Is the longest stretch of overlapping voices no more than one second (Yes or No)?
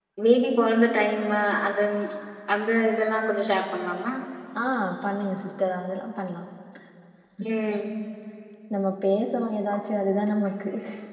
Yes